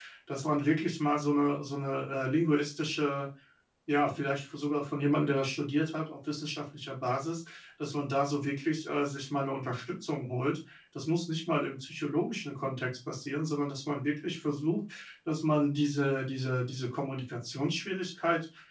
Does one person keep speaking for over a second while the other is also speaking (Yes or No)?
No